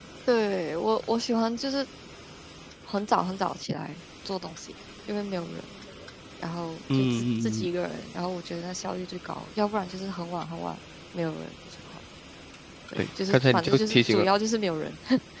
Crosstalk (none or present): present